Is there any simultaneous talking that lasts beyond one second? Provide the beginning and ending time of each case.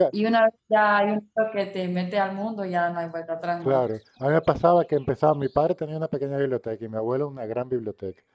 none

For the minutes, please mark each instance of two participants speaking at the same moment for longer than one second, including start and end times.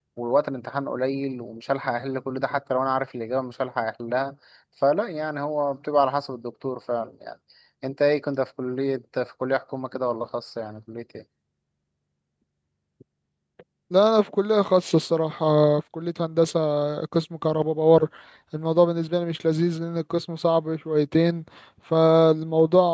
none

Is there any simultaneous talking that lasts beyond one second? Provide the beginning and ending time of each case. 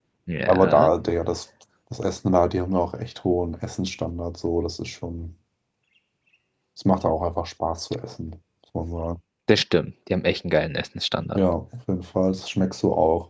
none

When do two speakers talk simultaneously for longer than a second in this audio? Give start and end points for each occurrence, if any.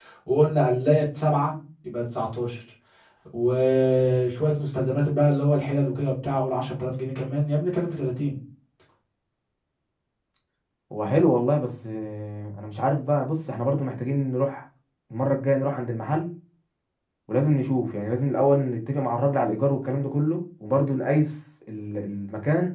none

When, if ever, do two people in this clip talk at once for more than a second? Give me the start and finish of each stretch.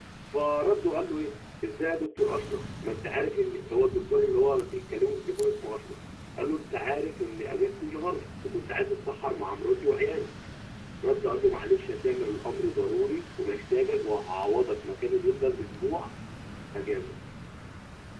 none

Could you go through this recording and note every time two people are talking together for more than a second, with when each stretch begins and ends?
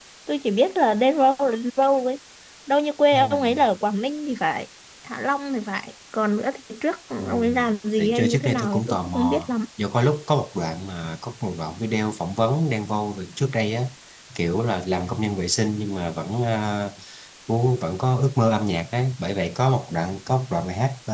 8.0-9.5

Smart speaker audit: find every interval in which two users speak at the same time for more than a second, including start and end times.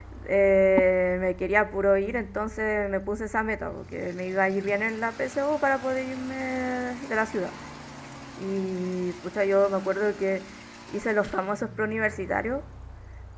none

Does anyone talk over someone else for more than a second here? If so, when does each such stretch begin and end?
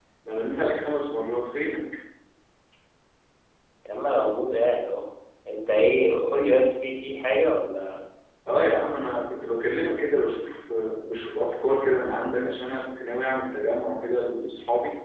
none

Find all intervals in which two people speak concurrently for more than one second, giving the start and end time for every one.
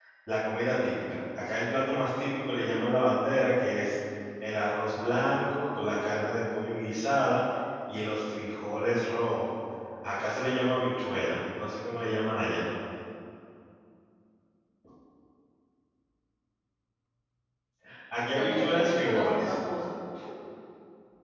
18.3-19.5

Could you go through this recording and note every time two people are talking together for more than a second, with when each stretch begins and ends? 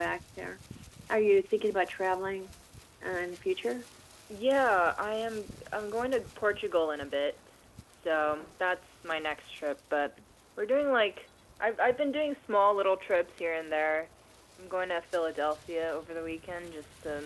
none

